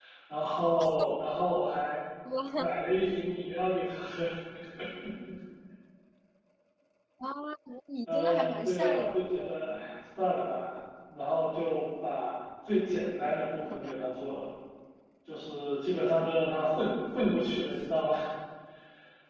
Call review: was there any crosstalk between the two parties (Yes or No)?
Yes